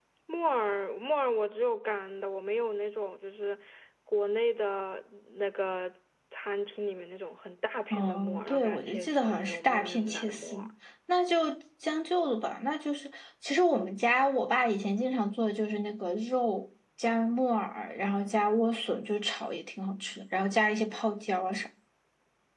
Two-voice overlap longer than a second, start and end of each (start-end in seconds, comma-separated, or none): 7.9-10.6